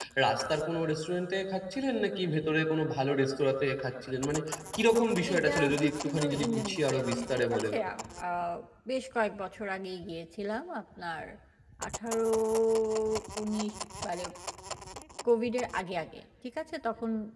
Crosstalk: present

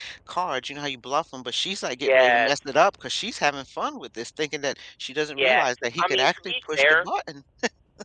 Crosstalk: present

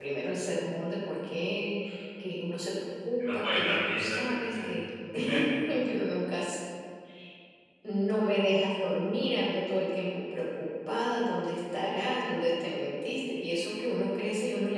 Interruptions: present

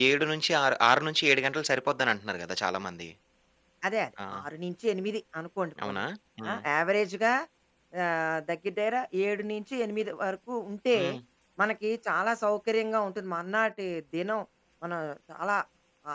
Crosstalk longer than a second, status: none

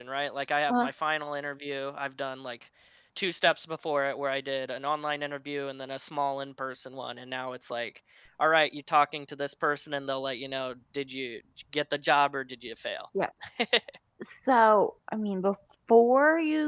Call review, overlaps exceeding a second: none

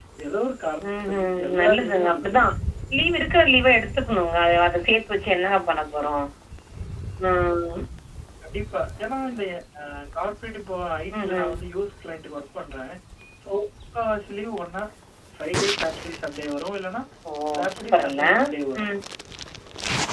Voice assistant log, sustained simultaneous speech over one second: present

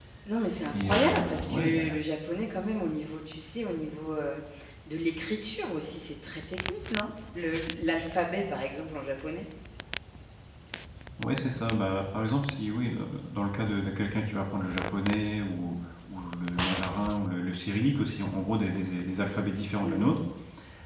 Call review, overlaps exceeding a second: present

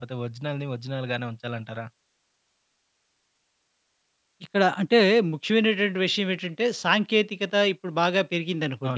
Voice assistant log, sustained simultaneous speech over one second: none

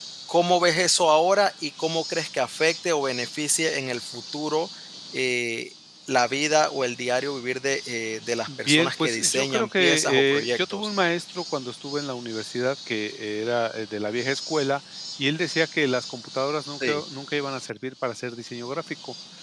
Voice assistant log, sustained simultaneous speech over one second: present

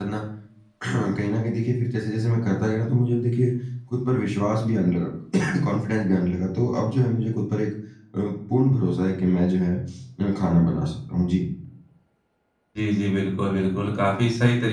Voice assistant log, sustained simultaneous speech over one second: none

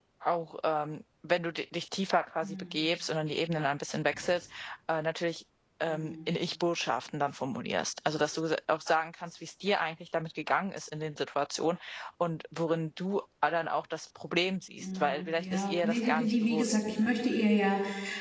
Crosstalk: present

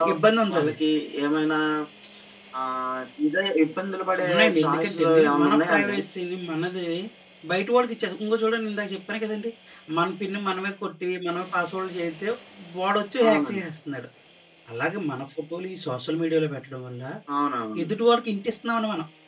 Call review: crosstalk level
present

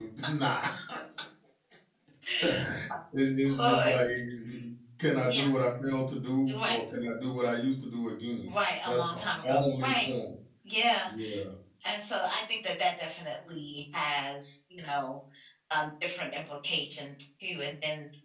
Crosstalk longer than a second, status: present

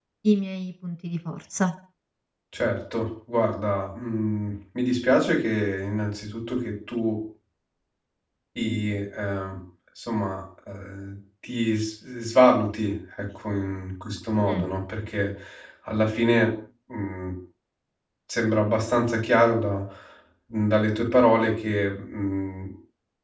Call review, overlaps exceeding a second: none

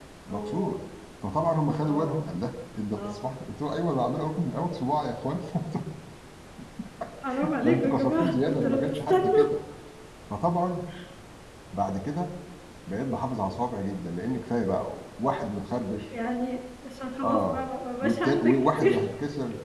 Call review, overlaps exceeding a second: present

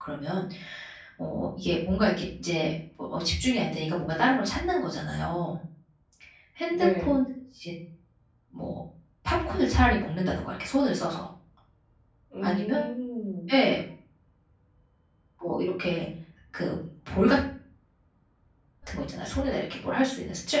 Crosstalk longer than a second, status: none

